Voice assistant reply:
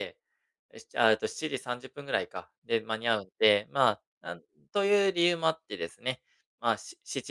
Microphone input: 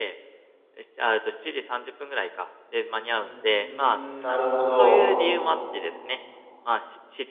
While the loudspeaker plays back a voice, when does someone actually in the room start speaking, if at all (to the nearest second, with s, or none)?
3 s